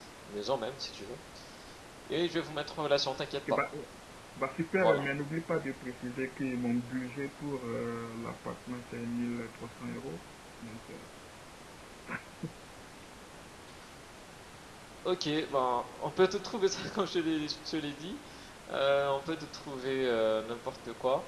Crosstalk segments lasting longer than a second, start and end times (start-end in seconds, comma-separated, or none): none